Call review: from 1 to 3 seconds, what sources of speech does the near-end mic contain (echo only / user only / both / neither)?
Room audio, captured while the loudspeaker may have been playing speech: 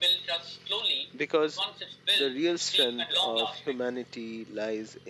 both